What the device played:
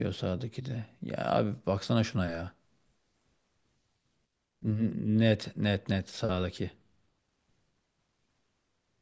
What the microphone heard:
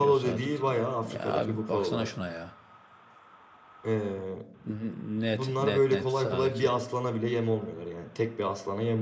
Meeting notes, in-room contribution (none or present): present